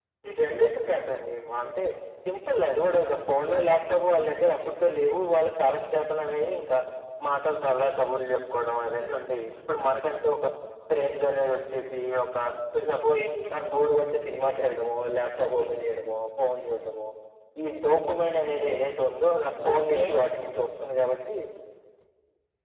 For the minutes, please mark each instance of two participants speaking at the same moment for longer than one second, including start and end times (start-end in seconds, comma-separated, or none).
none